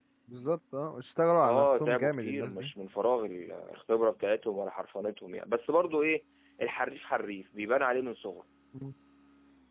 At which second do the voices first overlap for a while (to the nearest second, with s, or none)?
1 s